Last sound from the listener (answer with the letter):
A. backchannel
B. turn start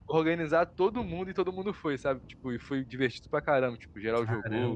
A